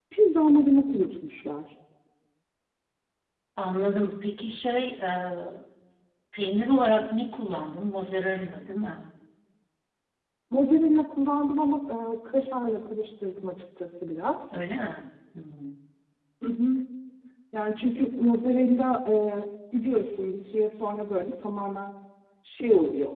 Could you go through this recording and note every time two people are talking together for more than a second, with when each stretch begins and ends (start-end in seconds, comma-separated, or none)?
none